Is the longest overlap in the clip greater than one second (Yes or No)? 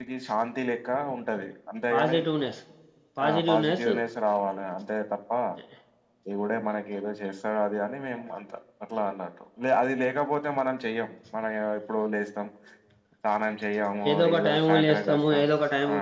Yes